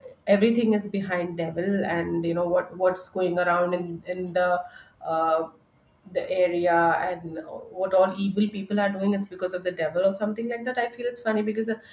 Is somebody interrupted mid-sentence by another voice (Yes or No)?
No